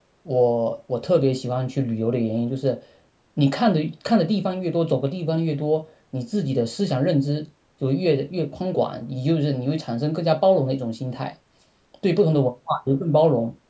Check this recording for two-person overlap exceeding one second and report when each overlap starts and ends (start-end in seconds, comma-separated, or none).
none